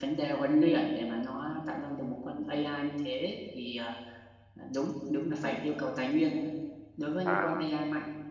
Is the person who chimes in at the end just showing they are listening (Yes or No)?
Yes